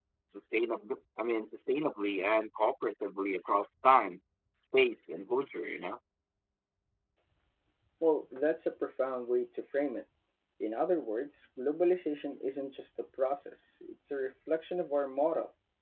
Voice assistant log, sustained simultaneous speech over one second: none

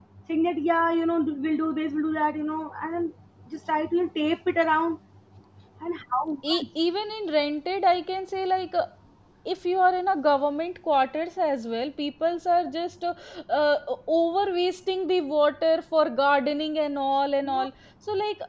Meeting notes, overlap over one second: none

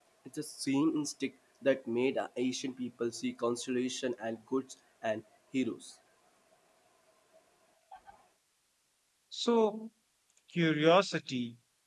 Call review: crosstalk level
none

